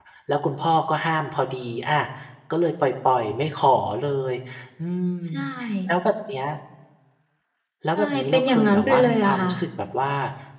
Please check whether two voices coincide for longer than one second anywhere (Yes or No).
Yes